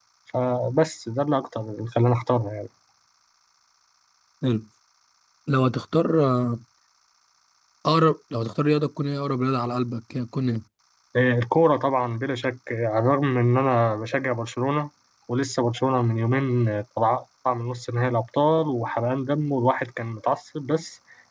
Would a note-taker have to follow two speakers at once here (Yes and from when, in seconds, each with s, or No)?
No